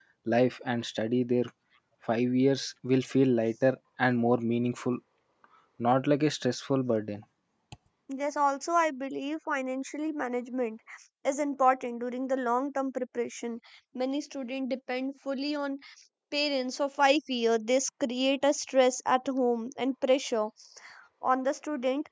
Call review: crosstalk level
none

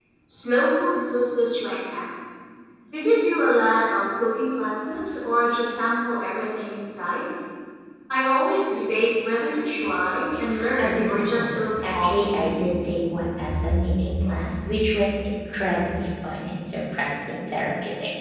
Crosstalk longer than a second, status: present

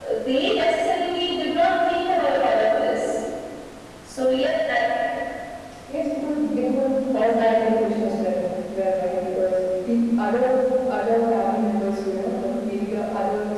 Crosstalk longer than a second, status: none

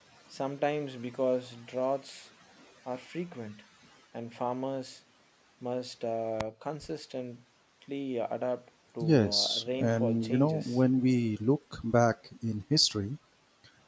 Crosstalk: present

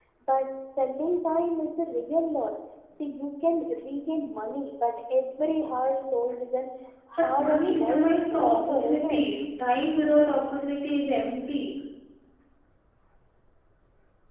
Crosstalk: present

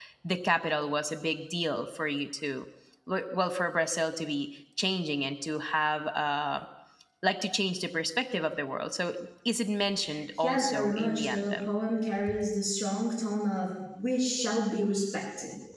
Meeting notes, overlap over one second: present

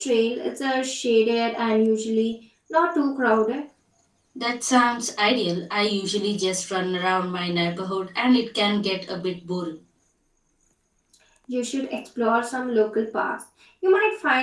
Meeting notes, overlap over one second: none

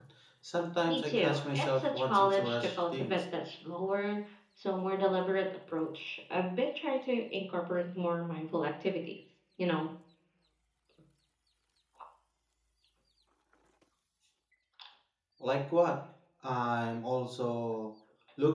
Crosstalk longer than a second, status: present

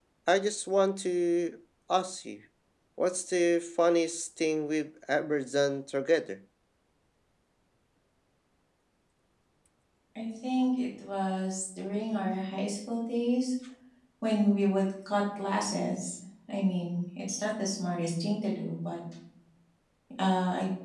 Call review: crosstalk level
none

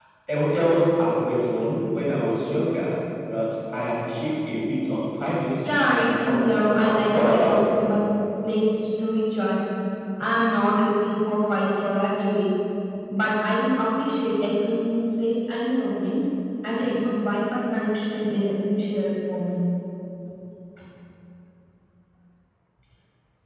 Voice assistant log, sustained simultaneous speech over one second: present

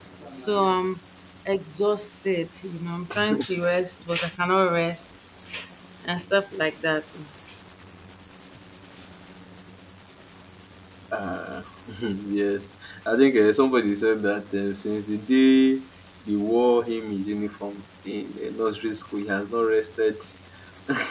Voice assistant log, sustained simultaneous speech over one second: none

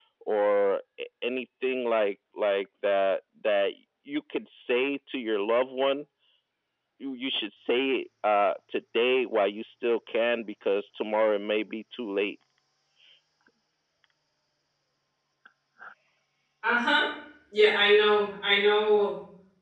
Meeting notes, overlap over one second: none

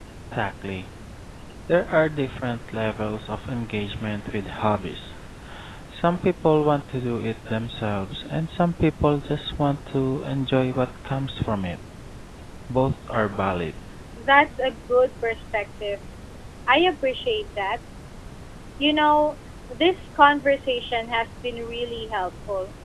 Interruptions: none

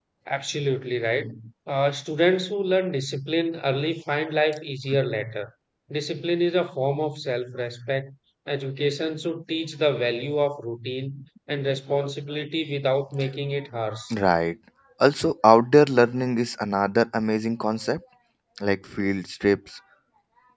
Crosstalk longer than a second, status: none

